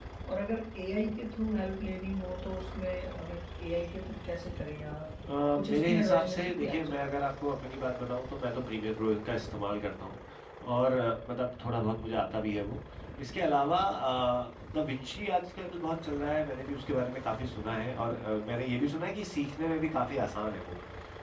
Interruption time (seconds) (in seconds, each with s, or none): 5.6 s